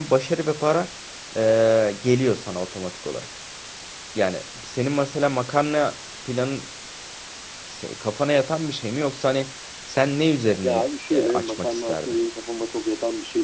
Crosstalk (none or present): present